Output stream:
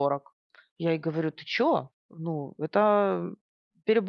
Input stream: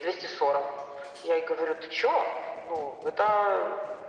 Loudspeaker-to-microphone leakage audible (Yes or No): Yes